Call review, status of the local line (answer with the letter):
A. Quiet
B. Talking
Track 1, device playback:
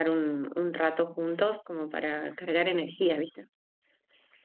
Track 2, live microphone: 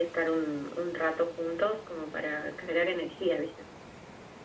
A